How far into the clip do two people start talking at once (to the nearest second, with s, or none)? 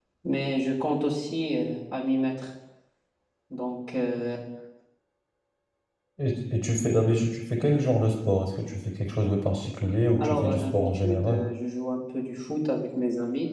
10 s